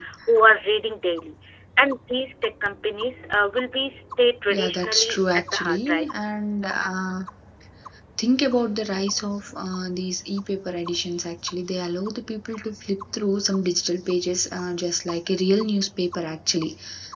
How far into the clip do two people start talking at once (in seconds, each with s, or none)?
4.5 s